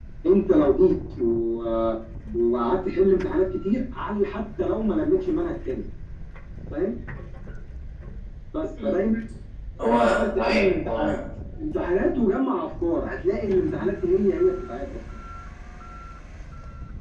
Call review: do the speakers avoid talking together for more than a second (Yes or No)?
No